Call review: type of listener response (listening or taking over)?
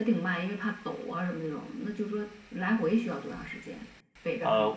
taking over